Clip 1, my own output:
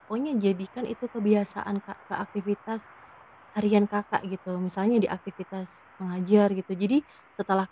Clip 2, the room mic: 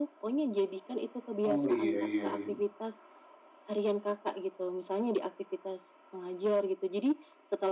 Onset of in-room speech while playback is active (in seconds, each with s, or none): 1.5 s